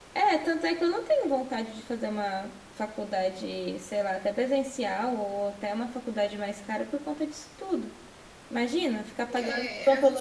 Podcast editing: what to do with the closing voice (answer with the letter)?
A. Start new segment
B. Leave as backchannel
A